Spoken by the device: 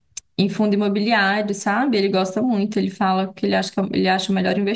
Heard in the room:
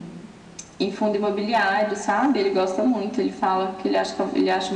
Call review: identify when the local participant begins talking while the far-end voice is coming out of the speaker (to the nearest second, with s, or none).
none